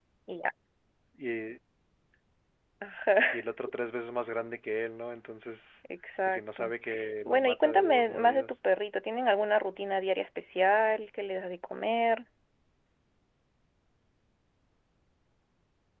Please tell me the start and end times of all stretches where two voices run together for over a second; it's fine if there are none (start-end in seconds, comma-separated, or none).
7.2-8.6